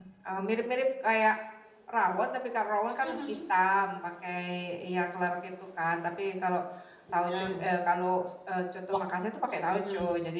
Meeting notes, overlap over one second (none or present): none